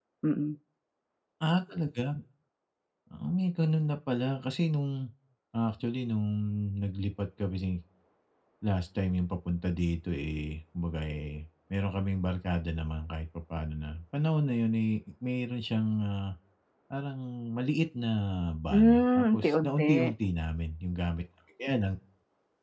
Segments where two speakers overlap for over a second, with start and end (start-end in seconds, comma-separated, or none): 18.7-20.1